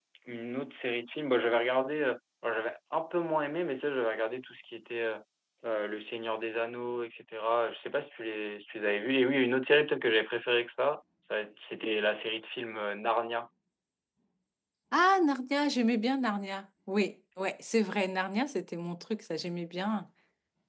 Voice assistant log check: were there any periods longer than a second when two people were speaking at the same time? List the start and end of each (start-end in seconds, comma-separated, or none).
none